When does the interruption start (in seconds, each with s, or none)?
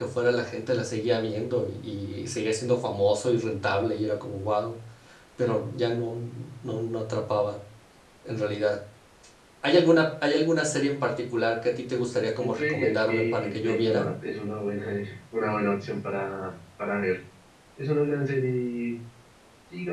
12.4 s